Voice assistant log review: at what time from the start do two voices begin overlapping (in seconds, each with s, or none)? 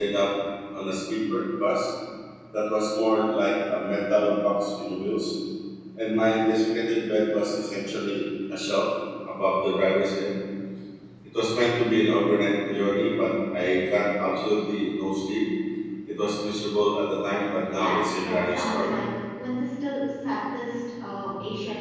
17.8 s